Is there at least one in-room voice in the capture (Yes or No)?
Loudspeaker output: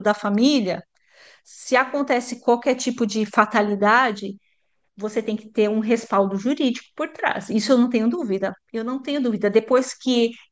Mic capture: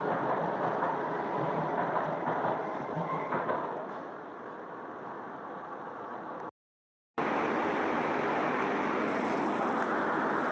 No